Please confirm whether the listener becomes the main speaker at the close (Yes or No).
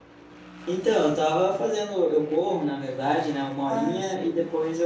No